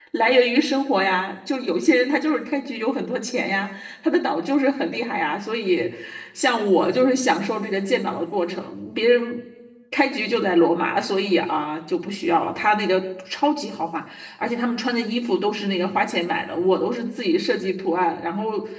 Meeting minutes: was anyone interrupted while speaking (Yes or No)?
No